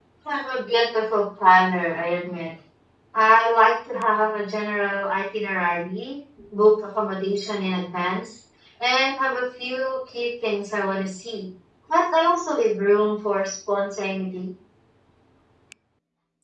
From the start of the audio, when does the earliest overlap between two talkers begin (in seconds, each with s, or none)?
none